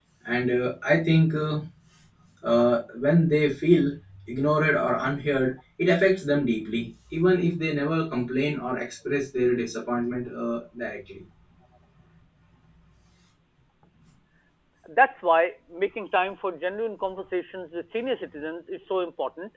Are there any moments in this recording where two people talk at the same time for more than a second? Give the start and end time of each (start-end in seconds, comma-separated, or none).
none